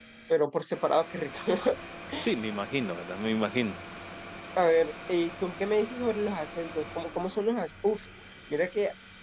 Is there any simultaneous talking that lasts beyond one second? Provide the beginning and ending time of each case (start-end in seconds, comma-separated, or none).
none